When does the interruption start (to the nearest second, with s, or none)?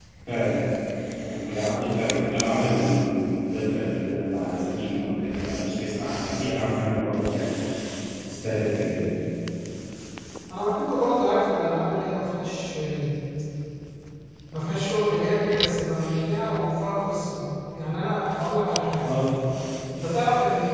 none